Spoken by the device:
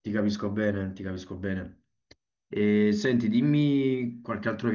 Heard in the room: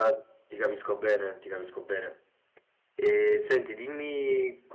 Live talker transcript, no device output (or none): none